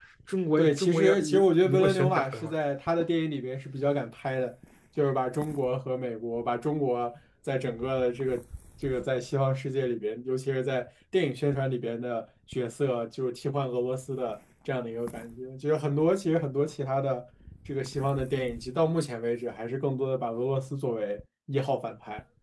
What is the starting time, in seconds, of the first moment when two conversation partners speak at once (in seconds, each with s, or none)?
0.6 s